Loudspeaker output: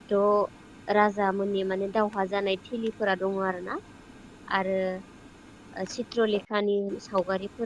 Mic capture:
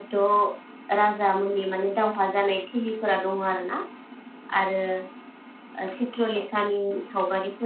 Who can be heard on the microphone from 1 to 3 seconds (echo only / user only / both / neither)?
echo only